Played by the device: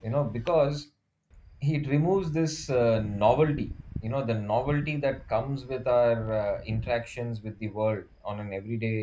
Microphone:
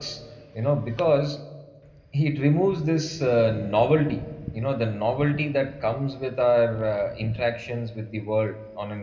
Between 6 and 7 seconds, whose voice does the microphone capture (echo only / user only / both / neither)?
echo only